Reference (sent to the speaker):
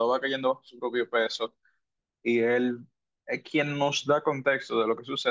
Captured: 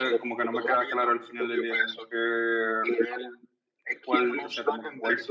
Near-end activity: present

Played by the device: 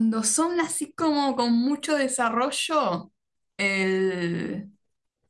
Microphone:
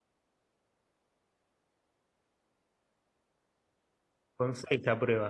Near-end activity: present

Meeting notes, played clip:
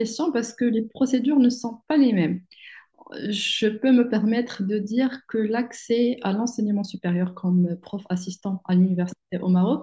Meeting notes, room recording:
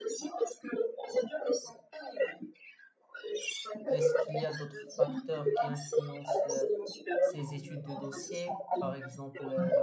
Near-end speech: present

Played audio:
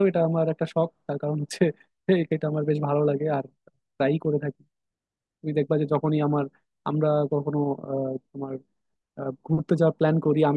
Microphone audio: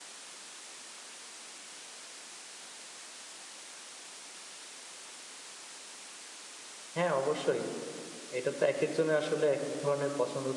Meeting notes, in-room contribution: present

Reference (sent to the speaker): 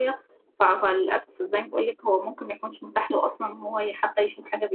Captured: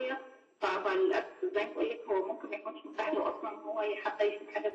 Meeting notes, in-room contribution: present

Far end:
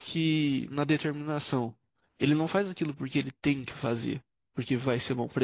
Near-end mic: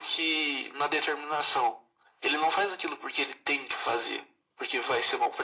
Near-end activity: none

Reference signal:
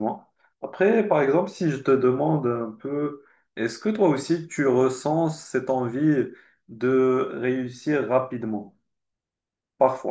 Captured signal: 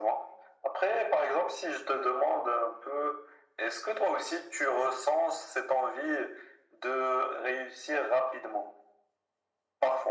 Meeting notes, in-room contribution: none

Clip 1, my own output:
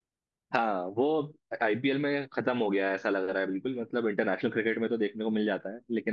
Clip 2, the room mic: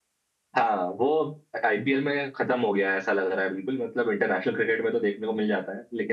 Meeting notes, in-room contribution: none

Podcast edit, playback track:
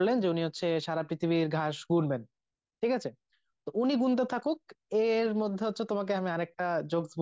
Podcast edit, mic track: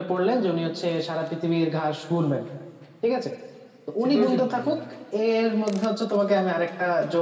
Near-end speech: present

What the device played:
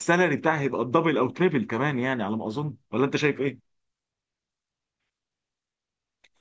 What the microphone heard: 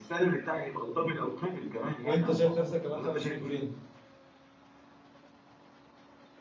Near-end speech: present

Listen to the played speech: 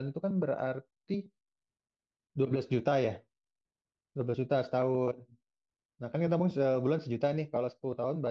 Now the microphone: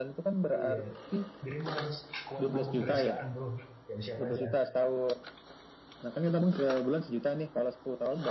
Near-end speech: present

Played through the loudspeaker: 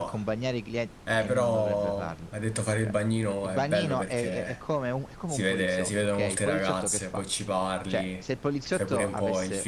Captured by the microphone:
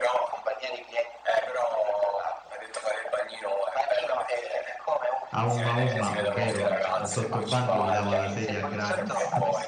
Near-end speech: present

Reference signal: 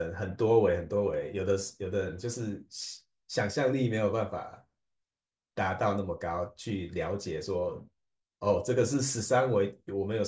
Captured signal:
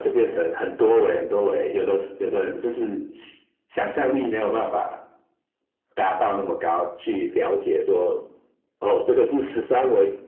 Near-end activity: none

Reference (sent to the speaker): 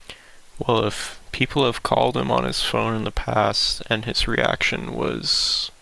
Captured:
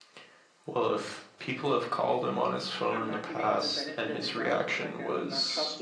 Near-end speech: present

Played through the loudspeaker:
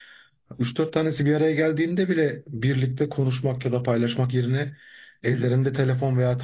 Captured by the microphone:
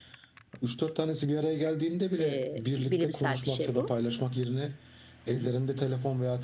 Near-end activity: present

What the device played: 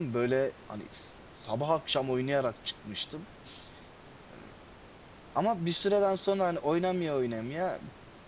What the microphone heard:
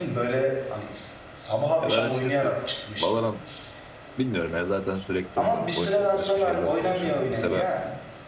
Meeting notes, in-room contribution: present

